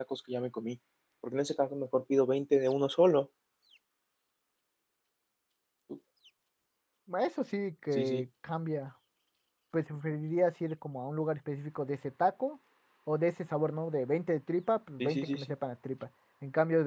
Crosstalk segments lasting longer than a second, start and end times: none

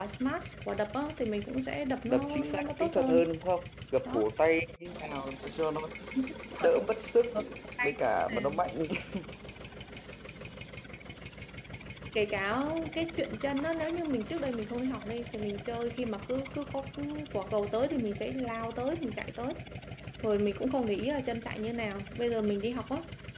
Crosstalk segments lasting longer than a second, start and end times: 2.0-3.3

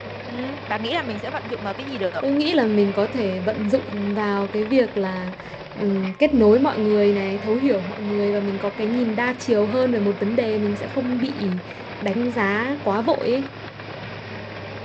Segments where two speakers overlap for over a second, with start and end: none

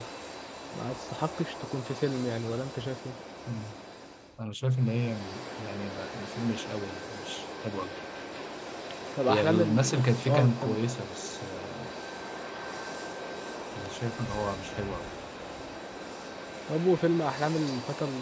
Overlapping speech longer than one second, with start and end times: 9.3-10.8

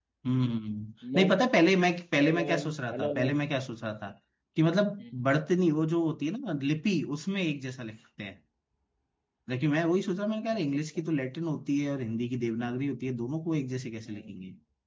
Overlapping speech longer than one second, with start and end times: 2.2-3.4

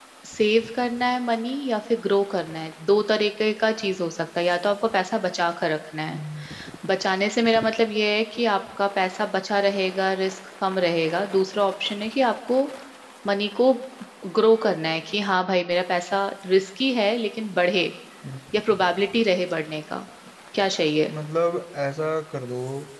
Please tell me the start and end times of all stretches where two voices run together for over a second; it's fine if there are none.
none

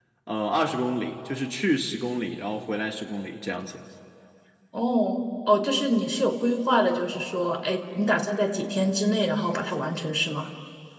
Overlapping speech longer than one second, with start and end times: none

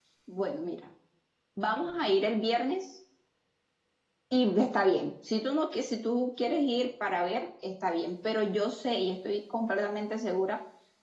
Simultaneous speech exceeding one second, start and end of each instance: none

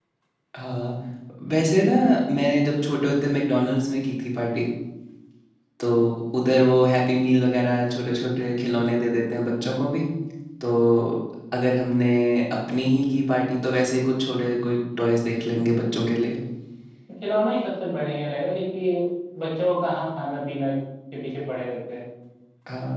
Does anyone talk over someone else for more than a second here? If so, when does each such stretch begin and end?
none

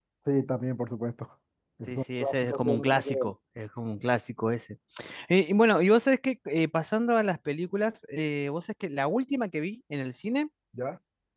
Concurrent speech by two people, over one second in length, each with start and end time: 1.9-3.3

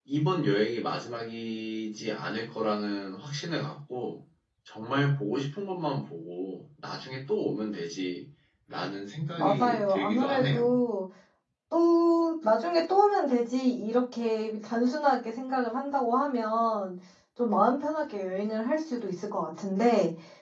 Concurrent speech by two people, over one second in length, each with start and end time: 9.4-10.7

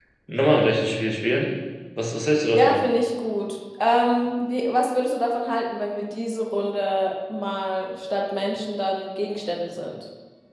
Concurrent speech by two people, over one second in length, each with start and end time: none

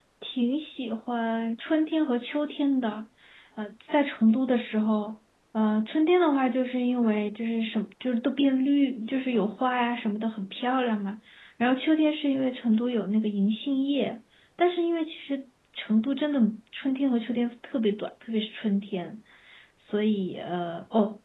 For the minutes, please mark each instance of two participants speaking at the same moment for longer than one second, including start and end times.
none

